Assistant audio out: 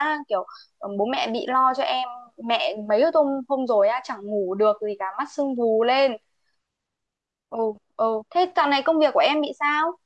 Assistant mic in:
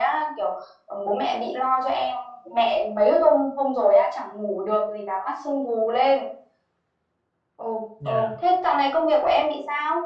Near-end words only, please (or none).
dạ